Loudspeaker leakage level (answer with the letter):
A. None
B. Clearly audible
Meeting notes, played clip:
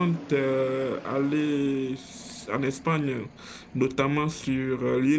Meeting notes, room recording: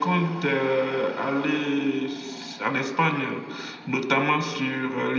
B